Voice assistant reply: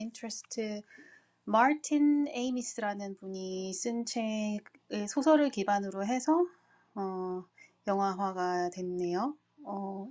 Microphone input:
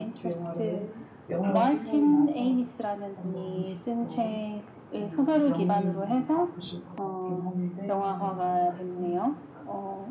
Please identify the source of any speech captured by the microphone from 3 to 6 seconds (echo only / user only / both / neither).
both